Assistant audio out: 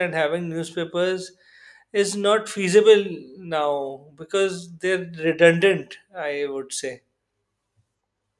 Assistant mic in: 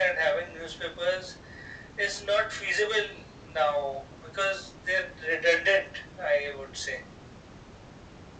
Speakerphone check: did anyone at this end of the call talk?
No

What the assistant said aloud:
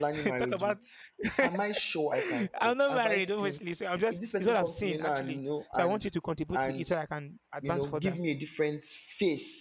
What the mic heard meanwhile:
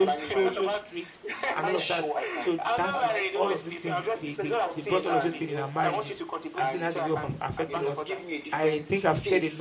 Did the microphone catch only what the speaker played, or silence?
No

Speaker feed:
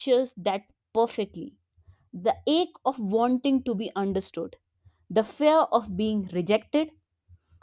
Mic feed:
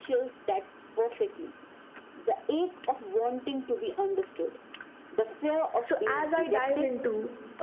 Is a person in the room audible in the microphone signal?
Yes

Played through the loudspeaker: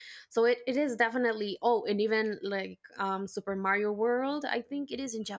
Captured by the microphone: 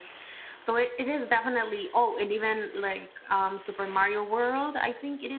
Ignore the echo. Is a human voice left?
No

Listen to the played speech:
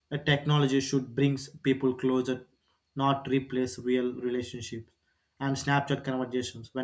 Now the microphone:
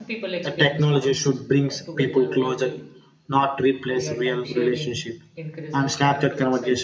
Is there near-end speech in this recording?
Yes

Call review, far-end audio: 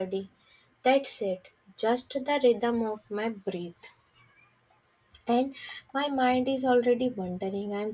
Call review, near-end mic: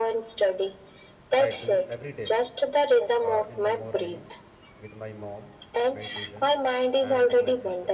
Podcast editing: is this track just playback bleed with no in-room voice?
No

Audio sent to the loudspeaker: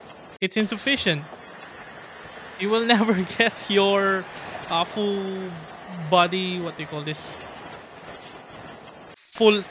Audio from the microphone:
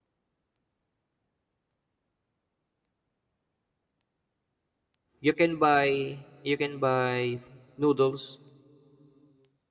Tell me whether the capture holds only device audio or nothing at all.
No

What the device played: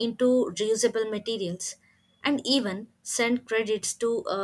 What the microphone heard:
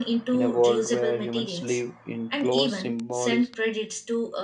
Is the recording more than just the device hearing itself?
Yes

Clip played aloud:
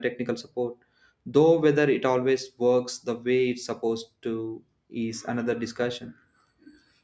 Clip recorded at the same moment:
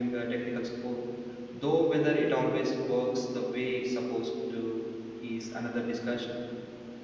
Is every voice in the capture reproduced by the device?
Yes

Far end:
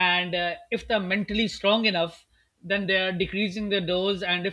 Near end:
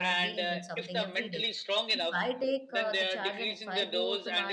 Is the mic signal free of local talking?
No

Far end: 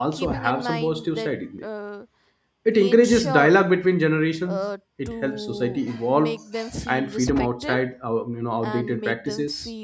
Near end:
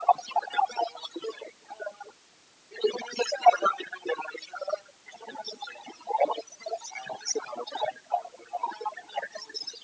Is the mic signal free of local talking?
Yes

